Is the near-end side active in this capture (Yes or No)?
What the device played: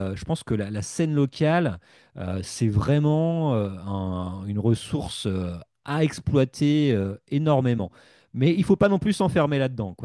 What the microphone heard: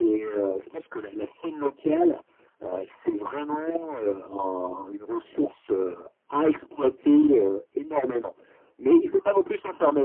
No